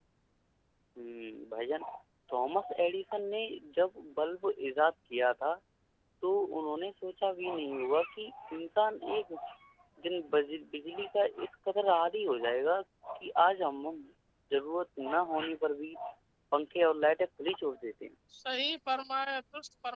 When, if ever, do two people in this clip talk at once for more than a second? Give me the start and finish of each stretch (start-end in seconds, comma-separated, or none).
none